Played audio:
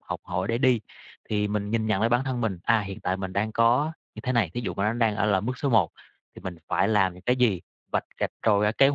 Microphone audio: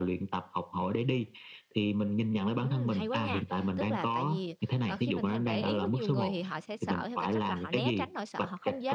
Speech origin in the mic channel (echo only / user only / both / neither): both